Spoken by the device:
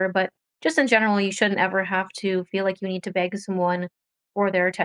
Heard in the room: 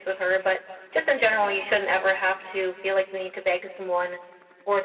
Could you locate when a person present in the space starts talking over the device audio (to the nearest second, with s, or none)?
none